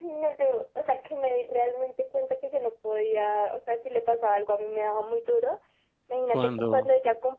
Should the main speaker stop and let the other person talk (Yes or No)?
No